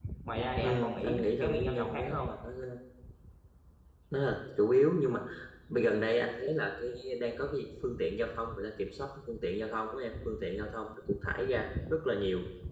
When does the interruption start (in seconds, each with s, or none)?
0.6 s